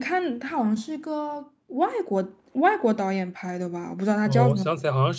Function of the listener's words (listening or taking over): taking over